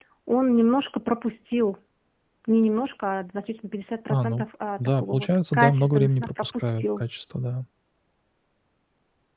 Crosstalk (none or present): present